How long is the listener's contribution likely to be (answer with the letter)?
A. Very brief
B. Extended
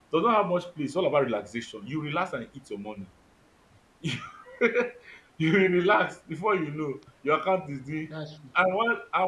A